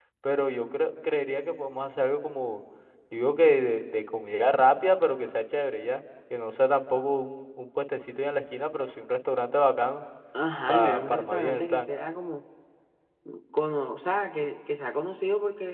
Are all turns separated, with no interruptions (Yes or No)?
No